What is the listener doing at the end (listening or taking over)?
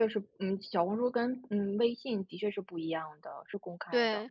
taking over